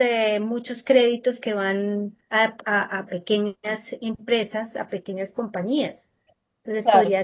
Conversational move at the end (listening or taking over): listening